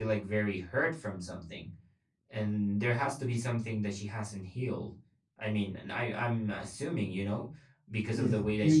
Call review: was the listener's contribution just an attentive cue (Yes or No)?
No